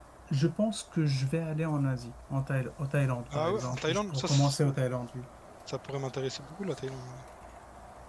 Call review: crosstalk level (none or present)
present